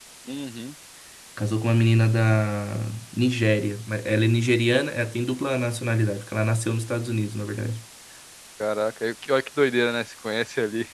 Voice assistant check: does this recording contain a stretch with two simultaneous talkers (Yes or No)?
No